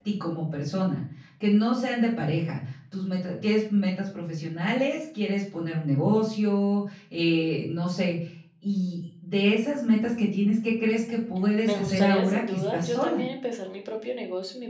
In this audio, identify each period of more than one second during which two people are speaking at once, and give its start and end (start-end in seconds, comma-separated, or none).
11.6-13.2